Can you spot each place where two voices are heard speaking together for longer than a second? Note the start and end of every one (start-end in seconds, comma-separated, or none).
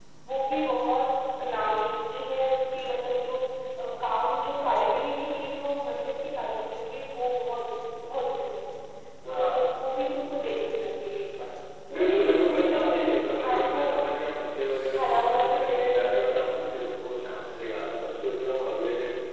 11.9-13.8, 14.9-16.8